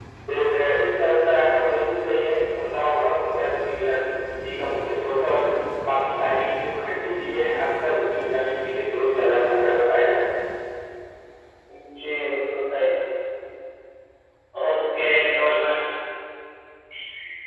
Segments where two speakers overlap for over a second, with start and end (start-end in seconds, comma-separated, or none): none